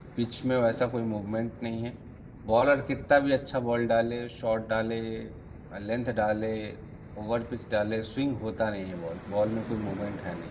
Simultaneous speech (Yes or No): No